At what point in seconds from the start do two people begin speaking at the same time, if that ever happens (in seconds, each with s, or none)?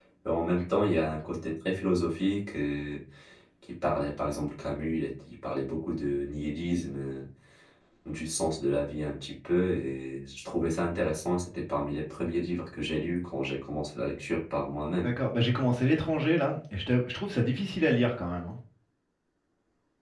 none